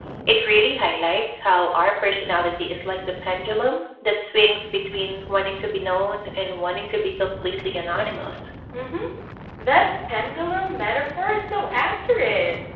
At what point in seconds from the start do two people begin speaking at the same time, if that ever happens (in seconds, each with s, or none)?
none